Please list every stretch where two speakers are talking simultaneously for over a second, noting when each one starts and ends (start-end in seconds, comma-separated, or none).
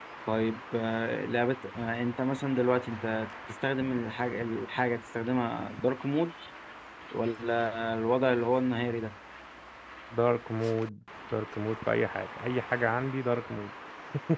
none